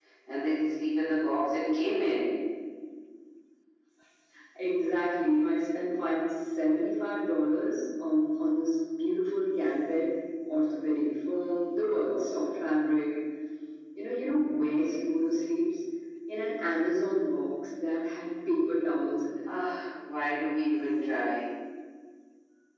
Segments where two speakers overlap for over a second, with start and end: none

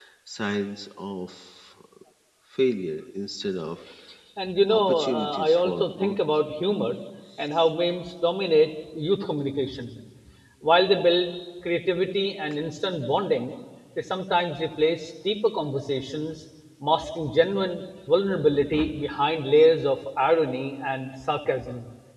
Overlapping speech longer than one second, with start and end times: 4.7-6.2

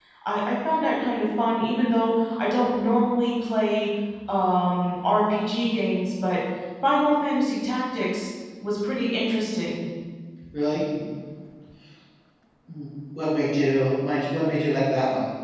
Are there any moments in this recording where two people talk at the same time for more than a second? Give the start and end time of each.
none

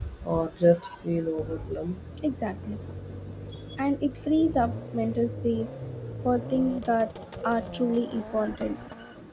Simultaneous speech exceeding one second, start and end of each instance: none

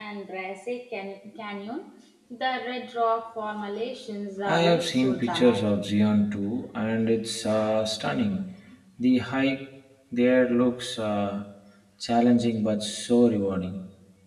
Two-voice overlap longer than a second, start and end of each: 4.5-5.7

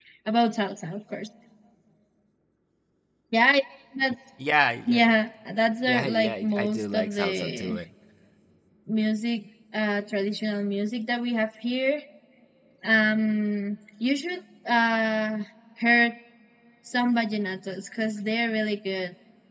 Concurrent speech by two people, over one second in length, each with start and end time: 5.8-7.8

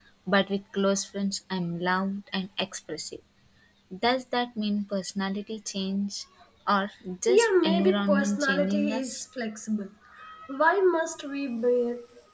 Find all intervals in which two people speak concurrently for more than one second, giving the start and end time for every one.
7.3-9.2

